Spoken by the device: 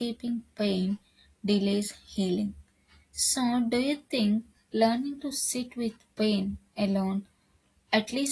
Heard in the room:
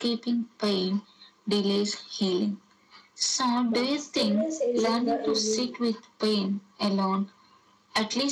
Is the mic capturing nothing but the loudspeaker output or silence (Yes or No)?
No